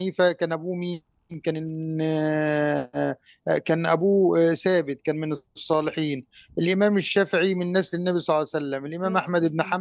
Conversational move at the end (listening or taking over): listening